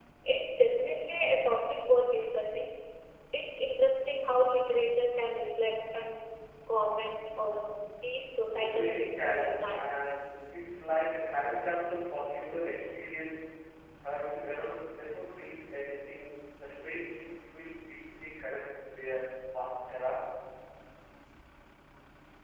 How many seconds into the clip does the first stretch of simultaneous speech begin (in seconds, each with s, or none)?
8.6 s